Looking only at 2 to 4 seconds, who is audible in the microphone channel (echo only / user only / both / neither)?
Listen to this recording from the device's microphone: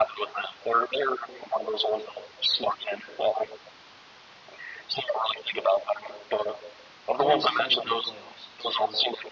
echo only